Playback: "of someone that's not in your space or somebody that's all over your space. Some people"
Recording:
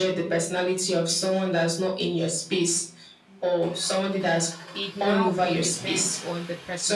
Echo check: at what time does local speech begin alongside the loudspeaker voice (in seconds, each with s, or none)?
4.7 s